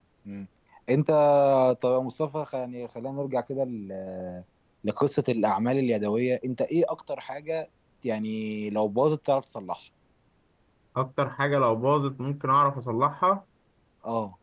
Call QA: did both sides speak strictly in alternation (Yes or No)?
Yes